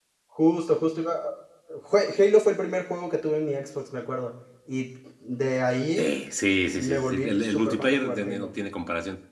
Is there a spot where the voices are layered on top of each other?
Yes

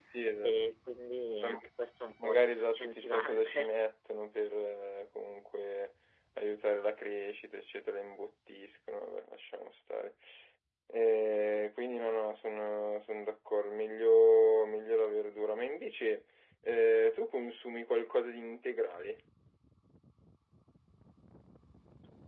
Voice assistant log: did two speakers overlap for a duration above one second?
Yes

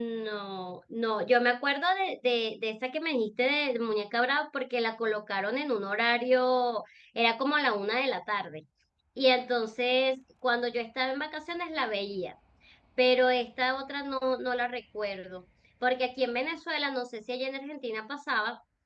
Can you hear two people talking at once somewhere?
No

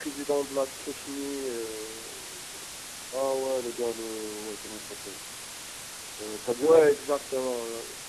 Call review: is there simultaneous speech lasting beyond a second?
No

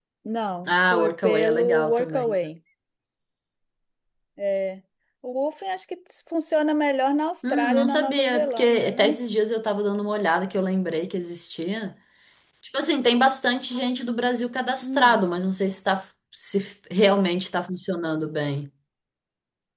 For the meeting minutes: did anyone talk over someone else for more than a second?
Yes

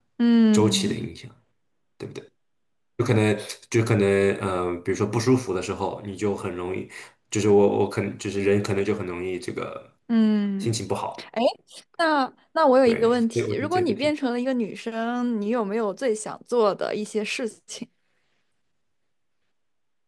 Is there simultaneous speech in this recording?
Yes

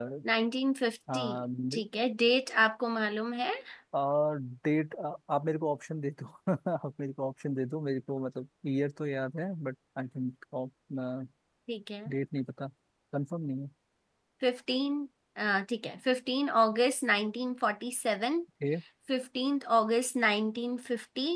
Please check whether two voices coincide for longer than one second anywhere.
No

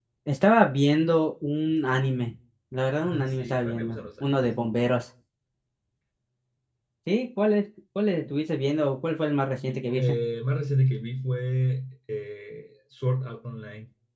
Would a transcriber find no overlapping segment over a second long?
No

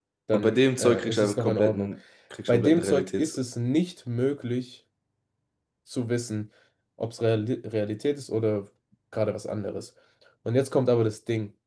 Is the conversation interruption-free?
No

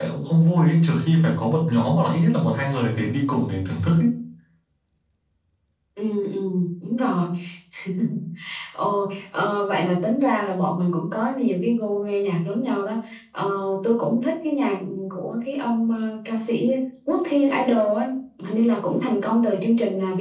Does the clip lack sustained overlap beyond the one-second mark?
Yes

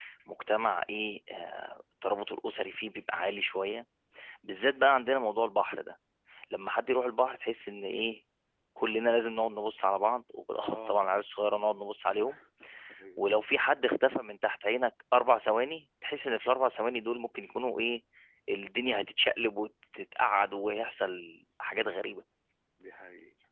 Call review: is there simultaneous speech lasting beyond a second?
No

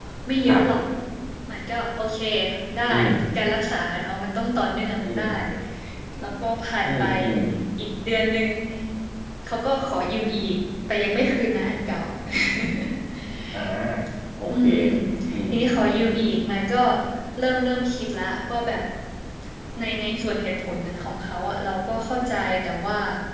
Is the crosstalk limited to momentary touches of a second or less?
Yes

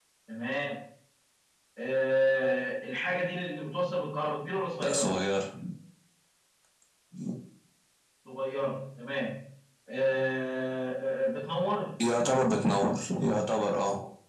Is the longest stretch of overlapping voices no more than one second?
Yes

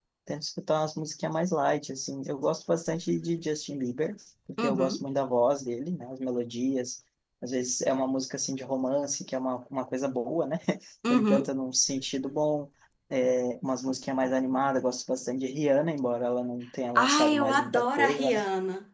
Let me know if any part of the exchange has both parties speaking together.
Yes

